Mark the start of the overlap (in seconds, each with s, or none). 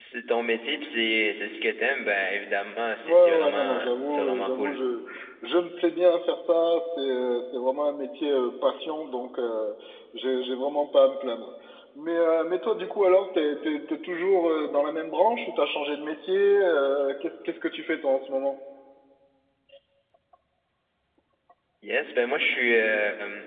3.0 s